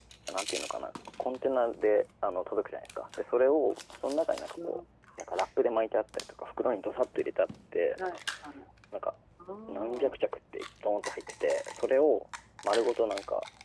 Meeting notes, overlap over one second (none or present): none